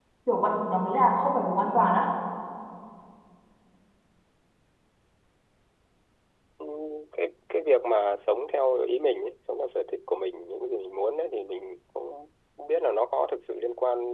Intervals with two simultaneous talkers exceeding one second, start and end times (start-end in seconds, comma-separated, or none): none